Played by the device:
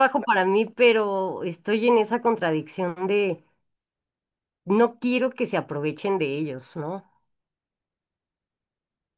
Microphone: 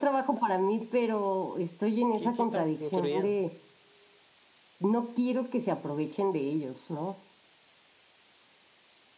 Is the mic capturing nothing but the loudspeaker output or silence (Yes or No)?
No